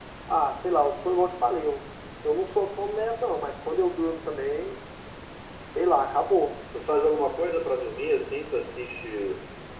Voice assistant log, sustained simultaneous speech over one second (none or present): none